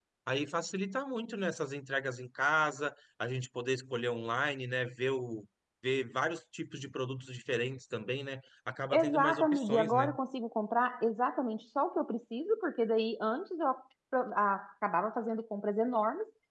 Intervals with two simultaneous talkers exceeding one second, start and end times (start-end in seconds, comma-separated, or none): 8.9-10.2